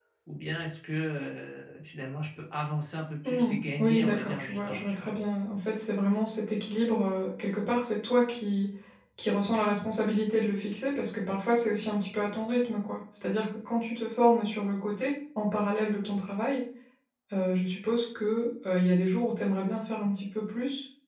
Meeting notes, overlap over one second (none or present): present